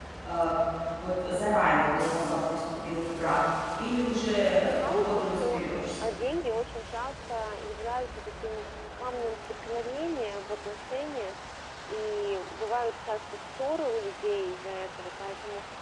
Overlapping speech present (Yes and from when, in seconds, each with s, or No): Yes, from 4.4 s